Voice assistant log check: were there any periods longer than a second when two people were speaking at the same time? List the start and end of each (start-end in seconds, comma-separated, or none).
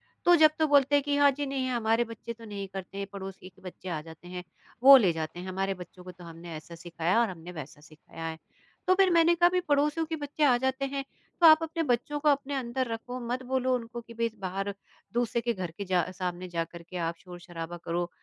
none